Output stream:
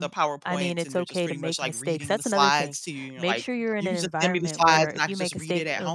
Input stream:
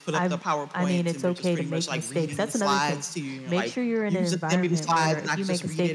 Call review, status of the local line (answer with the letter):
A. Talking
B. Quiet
B